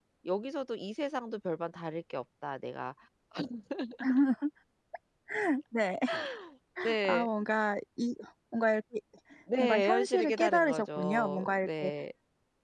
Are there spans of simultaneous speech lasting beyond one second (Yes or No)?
Yes